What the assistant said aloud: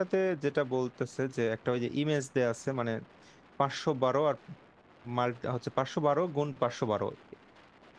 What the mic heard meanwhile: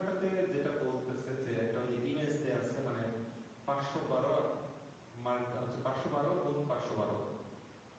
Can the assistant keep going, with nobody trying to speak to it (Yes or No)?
Yes